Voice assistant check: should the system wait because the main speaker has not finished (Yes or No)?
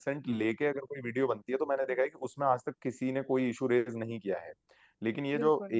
Yes